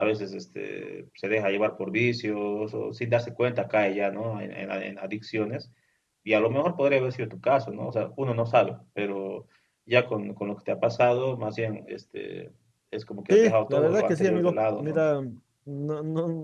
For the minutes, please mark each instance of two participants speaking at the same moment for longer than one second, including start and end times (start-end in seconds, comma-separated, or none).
13.3-15.0